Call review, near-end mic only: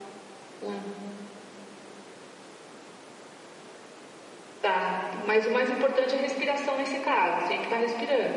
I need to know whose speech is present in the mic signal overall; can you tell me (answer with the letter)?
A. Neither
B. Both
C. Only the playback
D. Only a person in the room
C